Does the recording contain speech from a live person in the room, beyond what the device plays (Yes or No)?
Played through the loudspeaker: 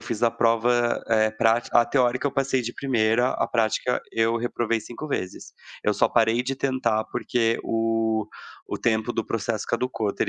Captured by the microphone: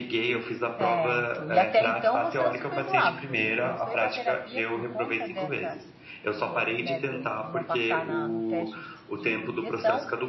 Yes